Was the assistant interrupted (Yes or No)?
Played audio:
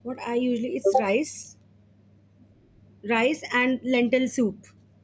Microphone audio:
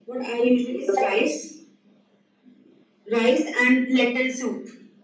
No